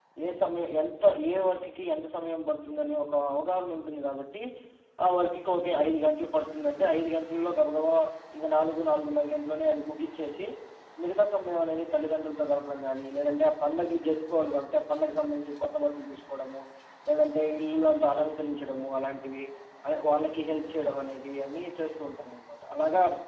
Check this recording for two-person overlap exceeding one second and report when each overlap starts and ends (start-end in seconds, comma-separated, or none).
none